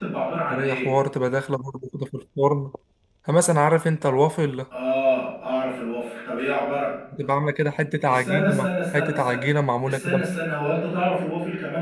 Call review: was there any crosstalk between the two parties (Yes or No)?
Yes